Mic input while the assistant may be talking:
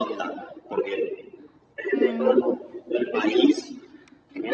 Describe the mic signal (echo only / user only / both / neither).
both